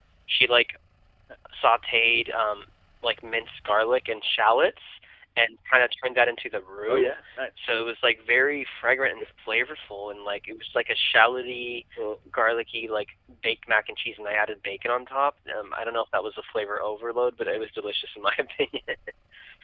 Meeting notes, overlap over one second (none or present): none